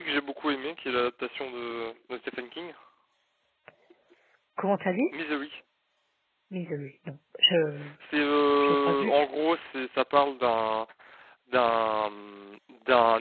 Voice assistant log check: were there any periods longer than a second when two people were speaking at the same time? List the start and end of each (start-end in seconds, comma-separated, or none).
none